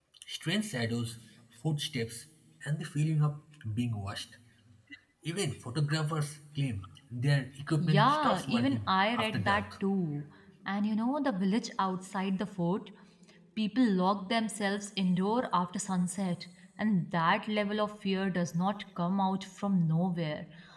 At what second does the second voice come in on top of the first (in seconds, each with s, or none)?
7.8 s